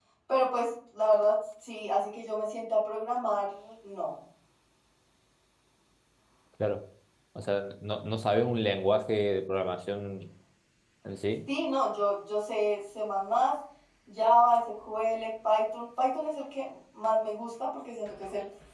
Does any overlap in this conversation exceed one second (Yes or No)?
No